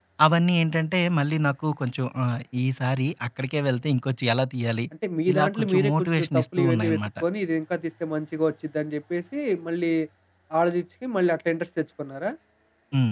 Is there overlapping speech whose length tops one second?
Yes, from 5.3 s

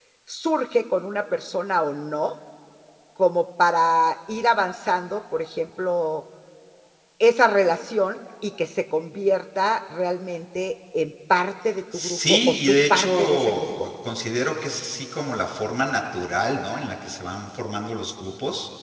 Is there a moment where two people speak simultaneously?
Yes, from 11.9 s

